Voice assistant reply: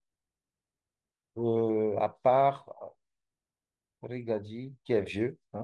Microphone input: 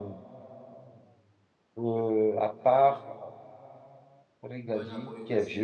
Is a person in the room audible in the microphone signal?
Yes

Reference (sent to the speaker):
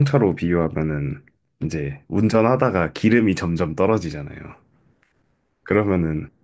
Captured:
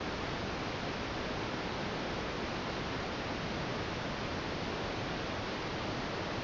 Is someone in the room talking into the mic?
No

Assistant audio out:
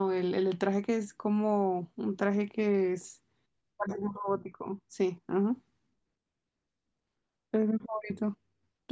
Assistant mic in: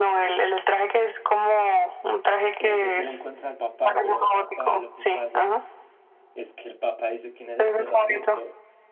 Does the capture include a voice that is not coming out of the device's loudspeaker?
Yes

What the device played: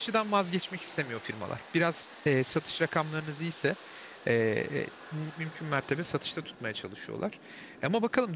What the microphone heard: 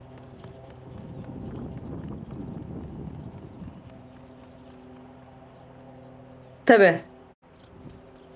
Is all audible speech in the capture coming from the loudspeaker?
No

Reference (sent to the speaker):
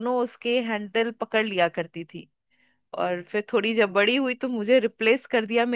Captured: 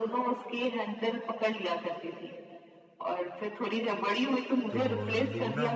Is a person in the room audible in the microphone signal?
Yes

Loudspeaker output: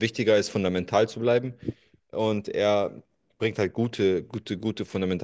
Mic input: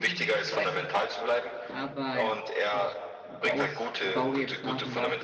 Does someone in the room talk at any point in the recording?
Yes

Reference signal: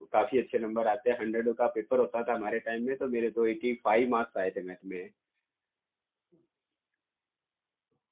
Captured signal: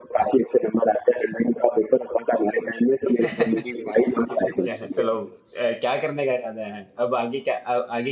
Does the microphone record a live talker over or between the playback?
Yes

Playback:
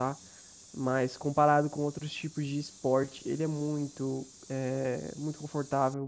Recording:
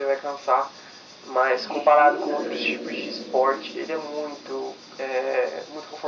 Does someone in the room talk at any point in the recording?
Yes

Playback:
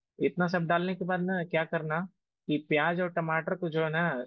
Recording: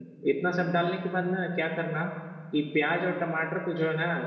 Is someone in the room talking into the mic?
No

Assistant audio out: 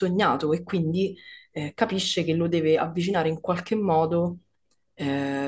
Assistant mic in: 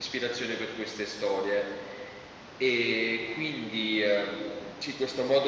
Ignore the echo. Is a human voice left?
Yes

